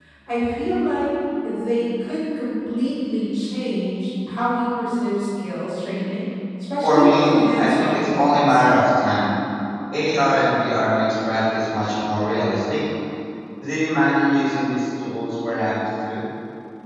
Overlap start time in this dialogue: 6.8 s

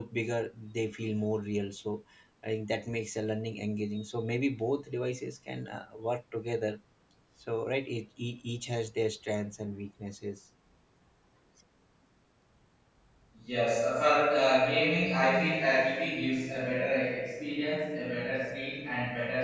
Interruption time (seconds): none

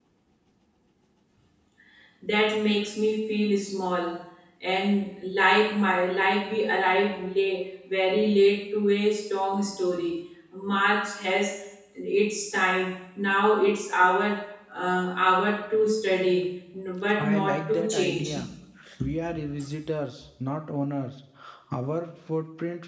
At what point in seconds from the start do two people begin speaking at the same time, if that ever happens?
17.2 s

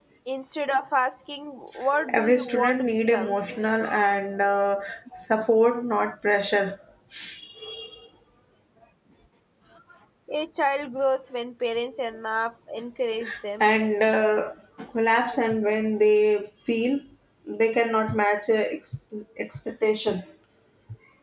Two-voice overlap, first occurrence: 1.9 s

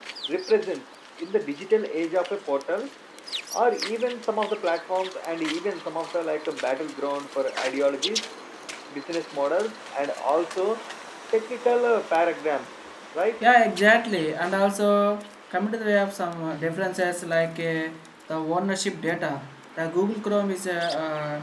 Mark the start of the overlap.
none

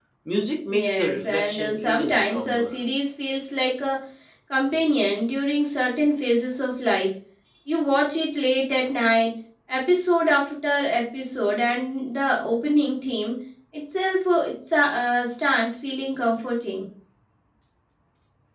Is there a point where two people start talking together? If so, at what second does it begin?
0.7 s

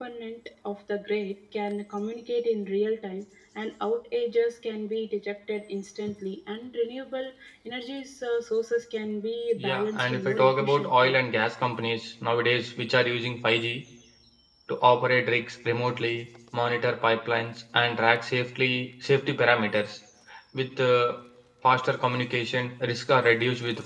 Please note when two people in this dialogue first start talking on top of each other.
9.6 s

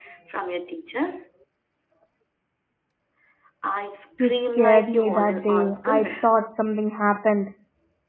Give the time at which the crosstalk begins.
4.2 s

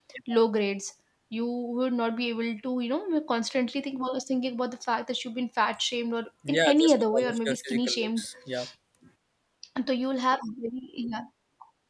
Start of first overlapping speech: 6.4 s

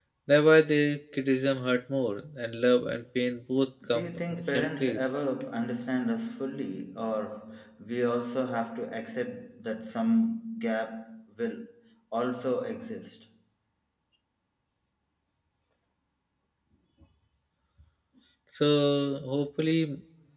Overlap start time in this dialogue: 3.8 s

